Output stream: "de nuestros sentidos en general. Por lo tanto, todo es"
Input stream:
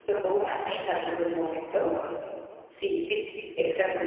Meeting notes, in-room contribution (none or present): present